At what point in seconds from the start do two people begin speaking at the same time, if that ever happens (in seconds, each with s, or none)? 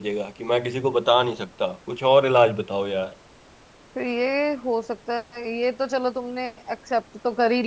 none